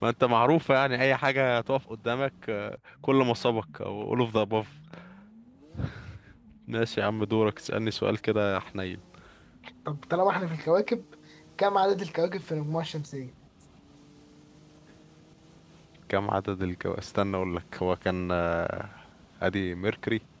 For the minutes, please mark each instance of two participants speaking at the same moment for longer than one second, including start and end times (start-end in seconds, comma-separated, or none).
none